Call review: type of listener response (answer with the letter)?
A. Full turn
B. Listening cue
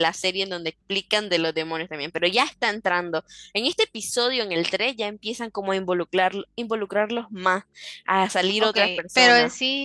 A